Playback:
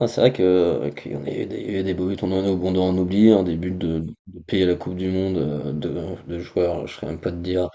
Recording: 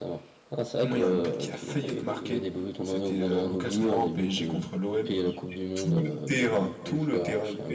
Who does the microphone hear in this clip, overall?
both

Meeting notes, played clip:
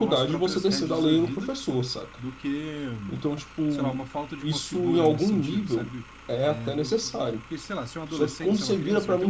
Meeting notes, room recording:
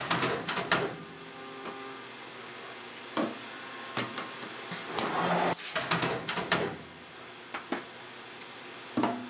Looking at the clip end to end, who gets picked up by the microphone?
neither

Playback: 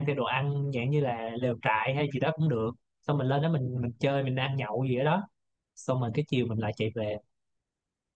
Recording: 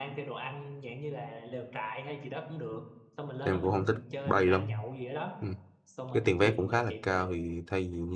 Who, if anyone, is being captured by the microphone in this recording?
both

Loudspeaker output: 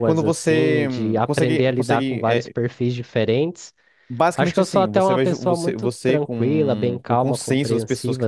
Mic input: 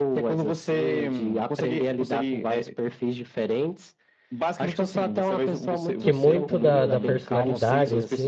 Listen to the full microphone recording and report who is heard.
both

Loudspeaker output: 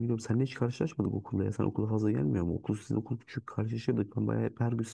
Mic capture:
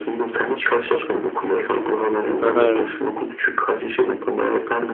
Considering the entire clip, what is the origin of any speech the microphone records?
both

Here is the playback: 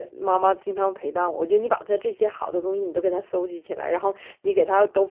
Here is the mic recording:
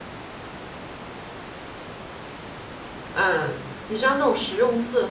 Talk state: user only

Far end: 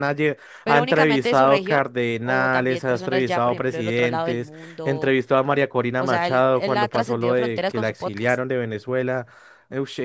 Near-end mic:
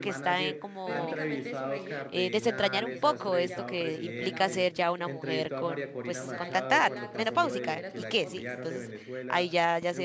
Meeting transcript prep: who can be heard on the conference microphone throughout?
both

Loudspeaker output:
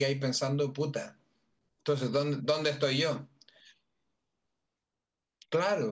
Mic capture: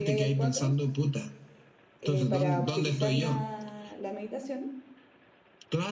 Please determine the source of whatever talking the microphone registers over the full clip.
both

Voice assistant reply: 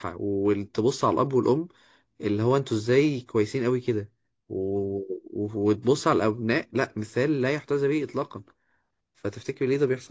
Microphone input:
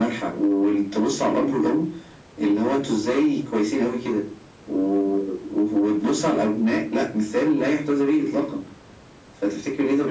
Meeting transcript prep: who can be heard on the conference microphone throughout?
echo only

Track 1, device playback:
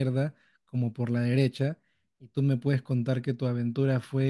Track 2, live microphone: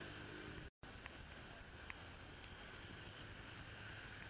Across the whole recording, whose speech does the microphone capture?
neither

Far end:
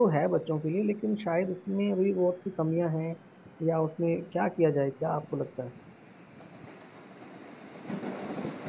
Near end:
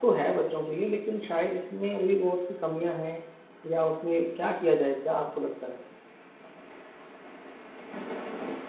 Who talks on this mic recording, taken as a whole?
echo only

